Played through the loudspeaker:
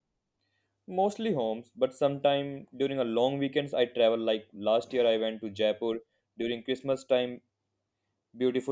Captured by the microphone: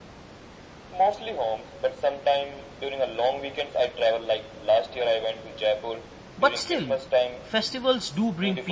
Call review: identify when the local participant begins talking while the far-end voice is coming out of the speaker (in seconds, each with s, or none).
6.4 s